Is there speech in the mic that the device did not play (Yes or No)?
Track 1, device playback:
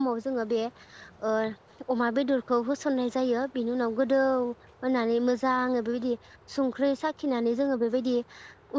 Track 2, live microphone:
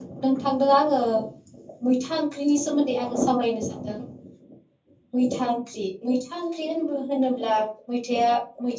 Yes